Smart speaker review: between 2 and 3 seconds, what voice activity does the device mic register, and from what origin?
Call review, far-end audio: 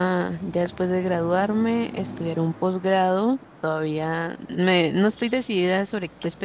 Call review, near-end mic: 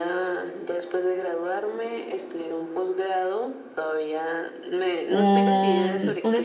echo only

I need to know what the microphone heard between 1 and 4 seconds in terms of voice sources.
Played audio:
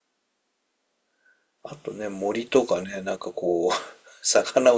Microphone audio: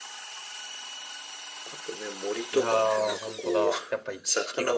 both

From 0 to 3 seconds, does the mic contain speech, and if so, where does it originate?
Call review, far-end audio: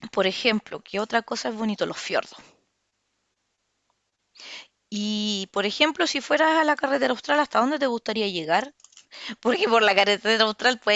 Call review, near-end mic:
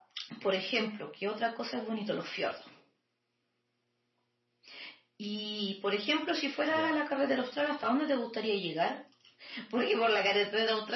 echo only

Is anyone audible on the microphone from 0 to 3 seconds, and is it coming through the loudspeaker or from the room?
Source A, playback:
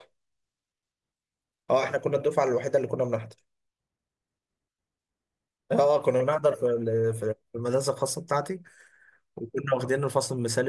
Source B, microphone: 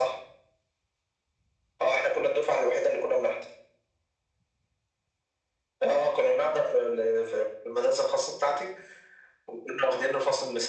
echo only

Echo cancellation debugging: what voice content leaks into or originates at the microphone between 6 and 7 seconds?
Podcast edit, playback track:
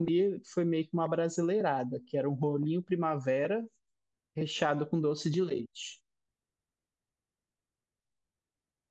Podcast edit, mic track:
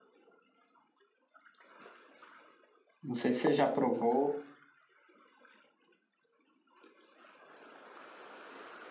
neither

